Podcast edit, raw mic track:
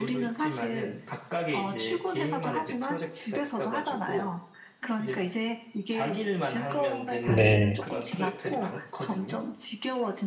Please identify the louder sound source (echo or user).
user